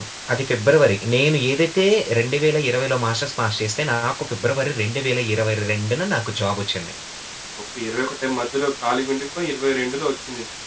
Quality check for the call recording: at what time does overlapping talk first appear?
none

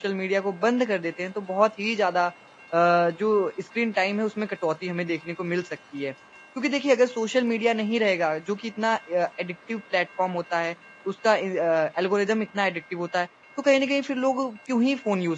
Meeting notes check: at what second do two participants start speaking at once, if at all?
none

